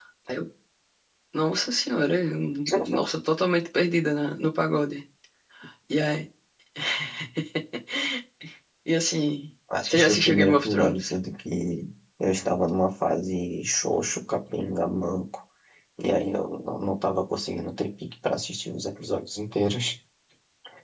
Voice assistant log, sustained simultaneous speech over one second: present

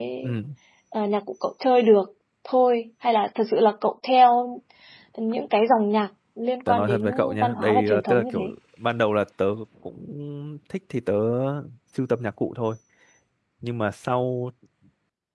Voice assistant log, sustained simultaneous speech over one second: present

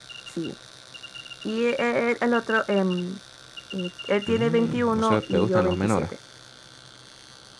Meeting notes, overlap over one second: present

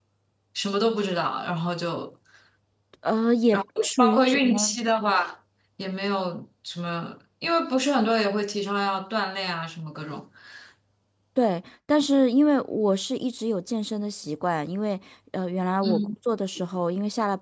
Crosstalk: present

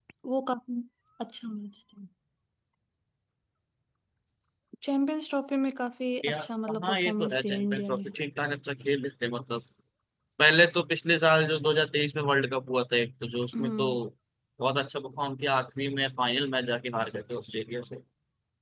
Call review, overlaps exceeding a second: present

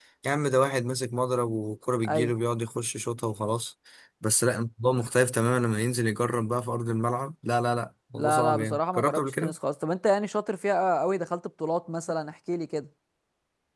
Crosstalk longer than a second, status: present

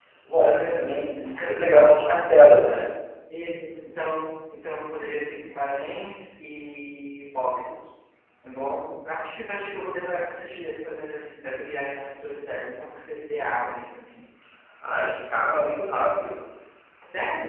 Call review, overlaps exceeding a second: present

